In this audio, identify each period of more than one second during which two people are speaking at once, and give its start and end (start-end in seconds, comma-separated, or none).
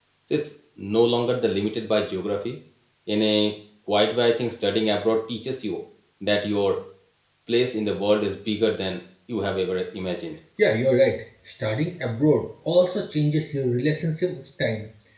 none